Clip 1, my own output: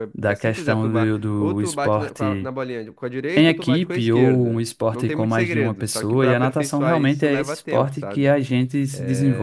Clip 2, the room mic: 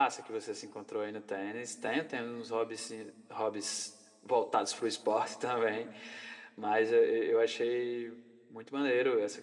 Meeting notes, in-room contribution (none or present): present